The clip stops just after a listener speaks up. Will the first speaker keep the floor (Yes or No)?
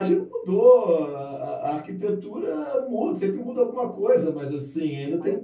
Yes